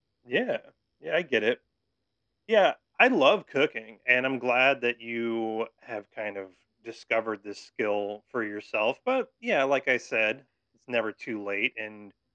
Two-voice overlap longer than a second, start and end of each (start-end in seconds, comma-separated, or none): none